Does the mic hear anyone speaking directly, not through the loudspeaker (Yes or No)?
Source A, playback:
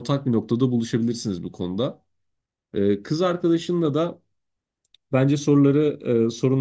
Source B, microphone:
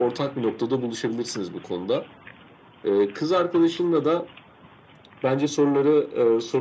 No